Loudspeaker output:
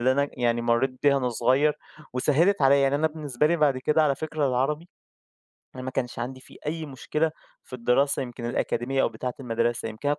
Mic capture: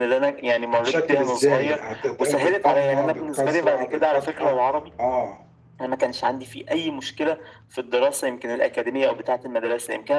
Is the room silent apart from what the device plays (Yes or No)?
No